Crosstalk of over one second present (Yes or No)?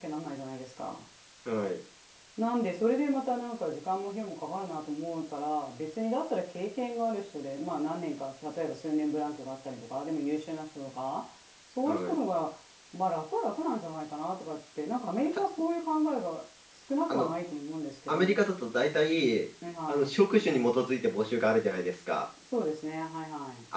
No